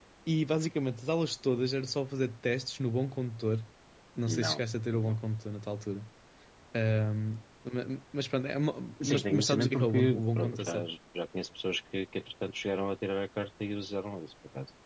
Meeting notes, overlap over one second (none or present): present